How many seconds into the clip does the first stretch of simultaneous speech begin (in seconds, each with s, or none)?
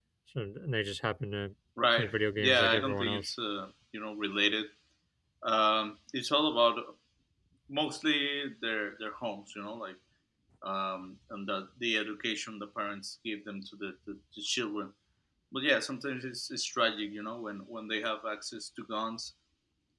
2.0 s